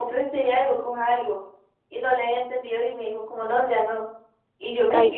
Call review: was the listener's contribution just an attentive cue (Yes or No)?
Yes